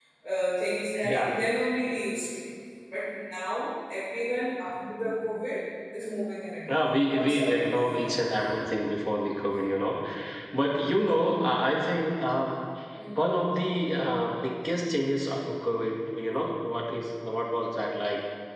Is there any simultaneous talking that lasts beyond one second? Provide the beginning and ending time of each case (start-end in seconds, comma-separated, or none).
6.7-8.2